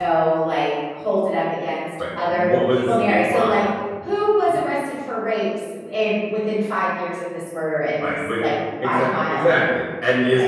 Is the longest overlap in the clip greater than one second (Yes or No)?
Yes